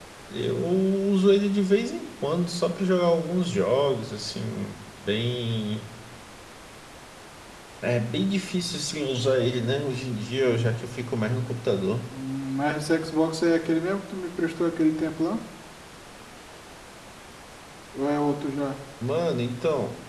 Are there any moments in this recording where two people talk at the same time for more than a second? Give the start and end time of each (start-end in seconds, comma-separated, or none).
none